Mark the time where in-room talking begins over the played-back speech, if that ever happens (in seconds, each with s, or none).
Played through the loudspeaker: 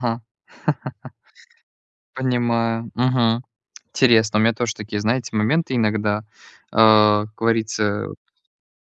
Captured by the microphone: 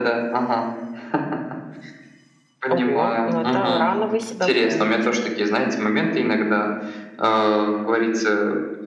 2.7 s